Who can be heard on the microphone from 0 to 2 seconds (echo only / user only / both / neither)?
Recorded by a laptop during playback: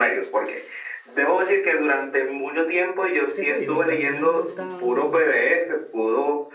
echo only